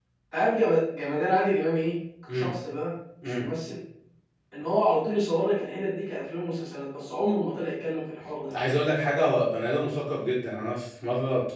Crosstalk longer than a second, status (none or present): none